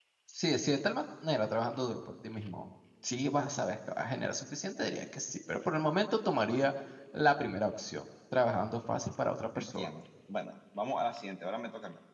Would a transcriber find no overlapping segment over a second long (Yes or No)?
Yes